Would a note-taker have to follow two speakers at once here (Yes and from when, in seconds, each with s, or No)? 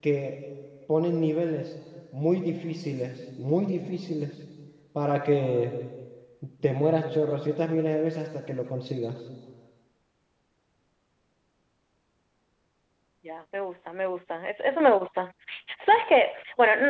No